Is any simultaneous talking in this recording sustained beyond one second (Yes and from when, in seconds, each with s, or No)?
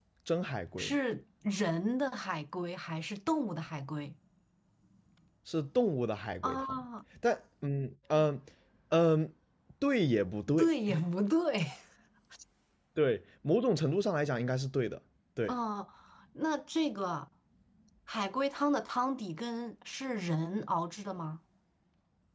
No